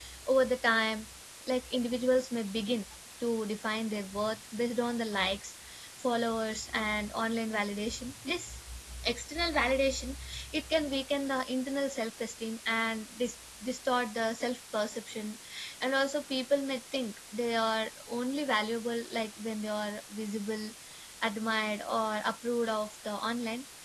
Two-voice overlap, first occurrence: none

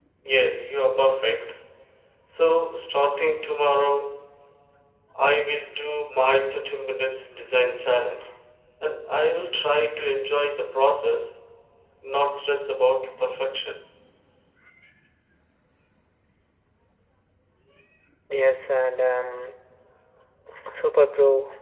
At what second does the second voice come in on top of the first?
none

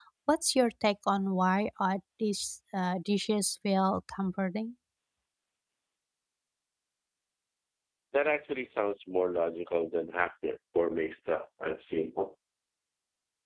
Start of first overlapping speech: none

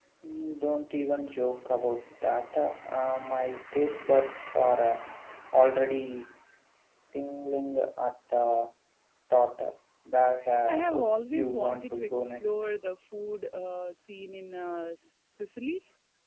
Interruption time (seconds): 10.7 s

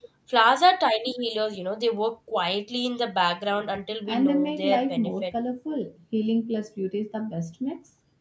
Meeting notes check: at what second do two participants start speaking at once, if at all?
4.1 s

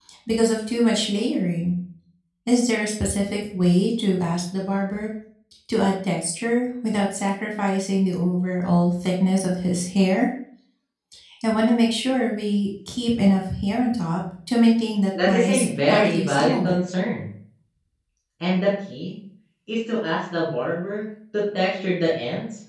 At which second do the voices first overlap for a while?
15.1 s

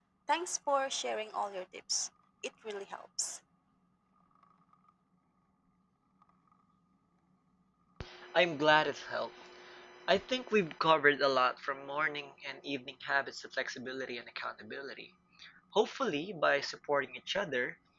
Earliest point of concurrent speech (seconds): none

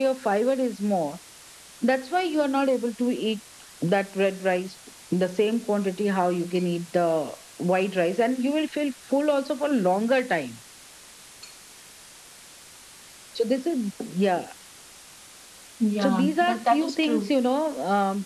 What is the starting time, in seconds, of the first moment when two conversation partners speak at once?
16.0 s

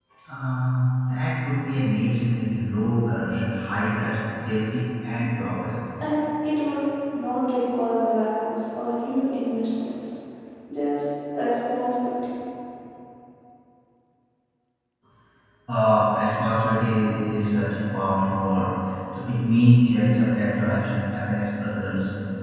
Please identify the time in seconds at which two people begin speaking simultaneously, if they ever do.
none

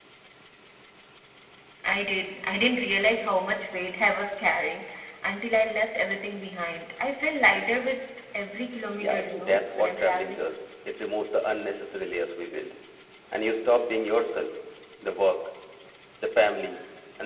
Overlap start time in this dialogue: 9.0 s

